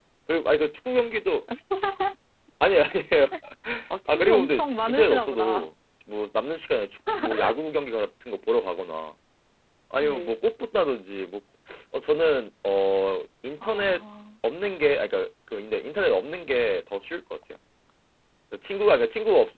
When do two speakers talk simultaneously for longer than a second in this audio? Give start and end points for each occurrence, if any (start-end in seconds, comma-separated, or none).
4.1-5.7